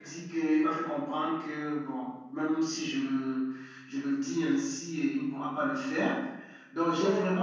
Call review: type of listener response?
listening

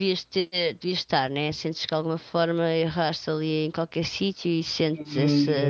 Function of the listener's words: taking over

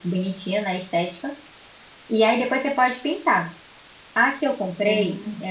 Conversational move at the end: listening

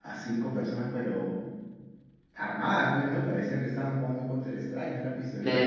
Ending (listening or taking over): taking over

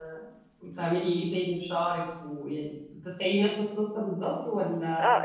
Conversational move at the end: taking over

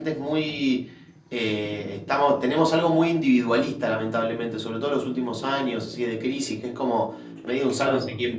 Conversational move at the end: listening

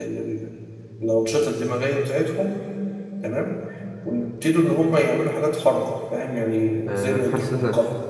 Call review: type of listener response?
taking over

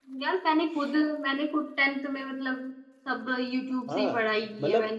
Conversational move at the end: taking over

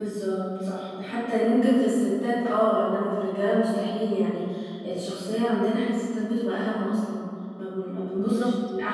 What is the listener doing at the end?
listening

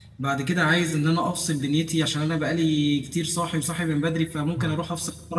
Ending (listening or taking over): listening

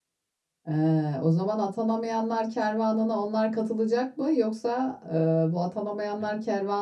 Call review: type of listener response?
listening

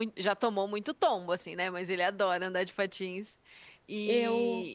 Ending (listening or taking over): listening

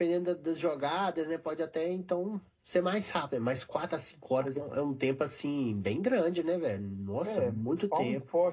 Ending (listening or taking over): taking over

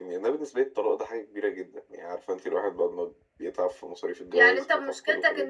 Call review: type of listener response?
taking over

